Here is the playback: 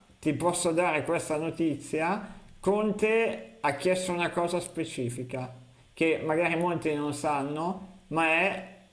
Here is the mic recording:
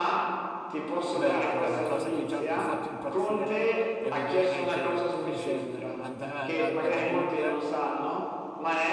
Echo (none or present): present